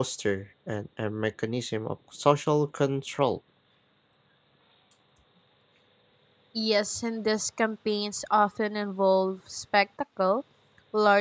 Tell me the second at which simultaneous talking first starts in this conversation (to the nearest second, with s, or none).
none